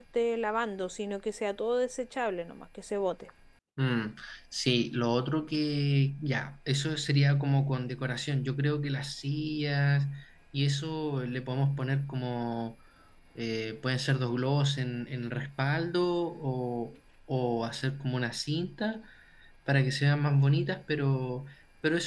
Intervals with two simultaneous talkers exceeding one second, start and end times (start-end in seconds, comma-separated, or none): none